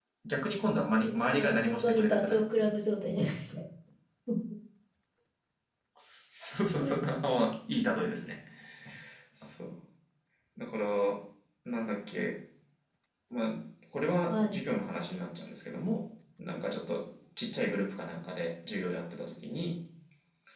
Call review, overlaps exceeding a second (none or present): present